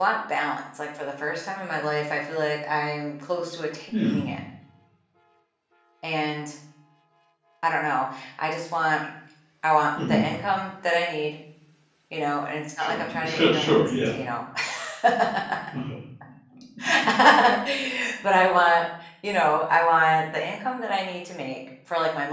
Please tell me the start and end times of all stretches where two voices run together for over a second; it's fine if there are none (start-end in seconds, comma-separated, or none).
12.8-14.1